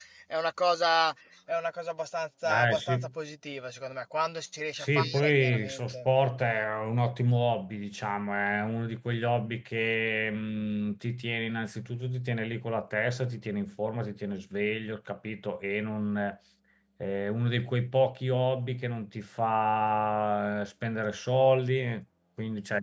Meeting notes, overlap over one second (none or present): present